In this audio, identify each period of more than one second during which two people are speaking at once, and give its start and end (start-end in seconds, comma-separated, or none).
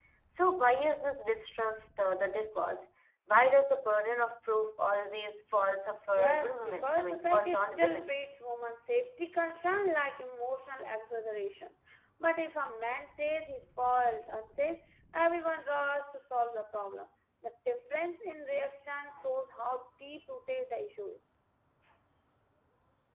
6.2-8.2